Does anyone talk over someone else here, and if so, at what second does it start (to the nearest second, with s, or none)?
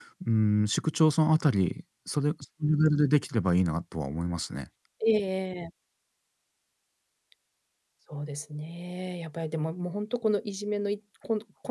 none